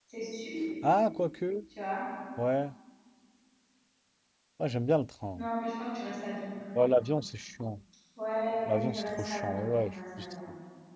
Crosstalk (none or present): present